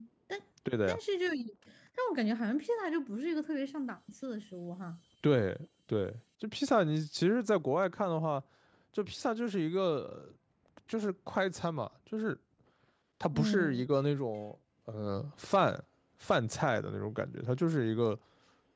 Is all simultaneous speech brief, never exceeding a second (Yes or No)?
Yes